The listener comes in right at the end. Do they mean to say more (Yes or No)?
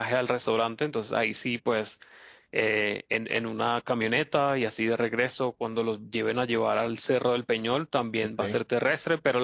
No